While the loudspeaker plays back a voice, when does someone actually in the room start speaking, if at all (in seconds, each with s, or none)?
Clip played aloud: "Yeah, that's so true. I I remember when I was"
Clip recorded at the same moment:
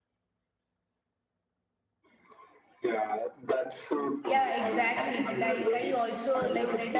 4.2 s